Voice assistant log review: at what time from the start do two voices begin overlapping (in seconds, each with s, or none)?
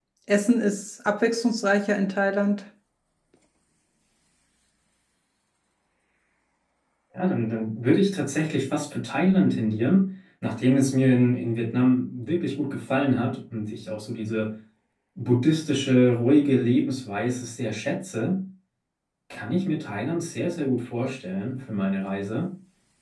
none